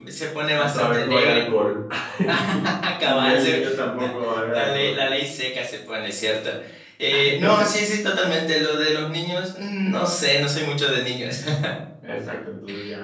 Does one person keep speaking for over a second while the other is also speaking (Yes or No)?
Yes